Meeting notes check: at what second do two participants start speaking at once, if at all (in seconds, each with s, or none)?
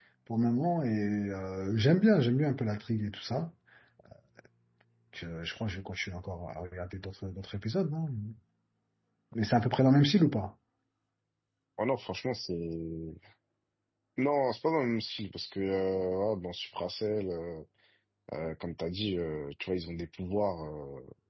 none